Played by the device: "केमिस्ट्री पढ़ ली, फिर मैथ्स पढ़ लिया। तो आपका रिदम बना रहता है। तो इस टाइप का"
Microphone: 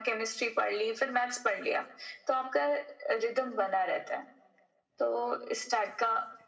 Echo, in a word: present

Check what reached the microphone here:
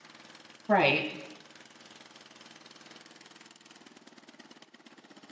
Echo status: none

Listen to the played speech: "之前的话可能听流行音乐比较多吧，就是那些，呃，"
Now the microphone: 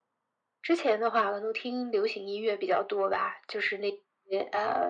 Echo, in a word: present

